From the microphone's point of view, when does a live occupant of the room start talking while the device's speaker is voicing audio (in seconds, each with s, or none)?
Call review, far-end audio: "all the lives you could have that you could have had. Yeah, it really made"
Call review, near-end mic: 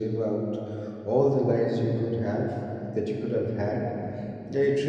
none